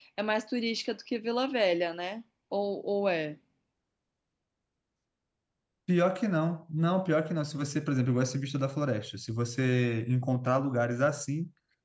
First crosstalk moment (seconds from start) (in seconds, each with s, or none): none